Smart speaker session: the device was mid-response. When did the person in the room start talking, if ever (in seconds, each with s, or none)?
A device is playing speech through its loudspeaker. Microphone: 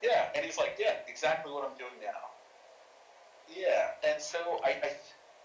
none